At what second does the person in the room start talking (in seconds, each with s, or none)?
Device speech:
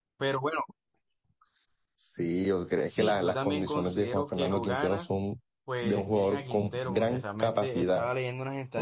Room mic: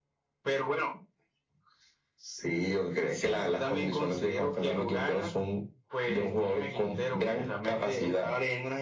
none